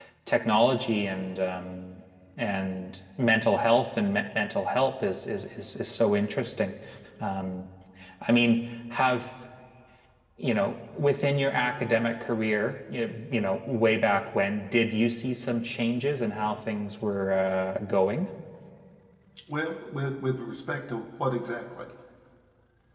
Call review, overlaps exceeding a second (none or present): none